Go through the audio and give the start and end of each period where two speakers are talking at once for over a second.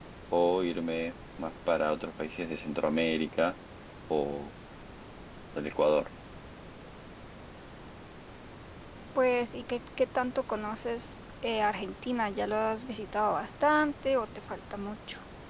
none

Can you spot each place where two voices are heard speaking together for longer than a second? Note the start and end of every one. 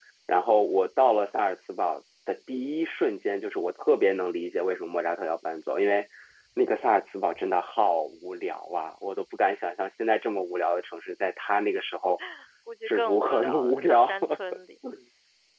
12.9-14.2

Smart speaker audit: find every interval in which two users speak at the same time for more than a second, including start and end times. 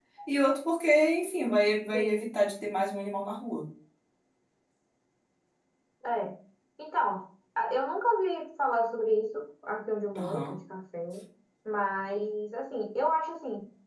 none

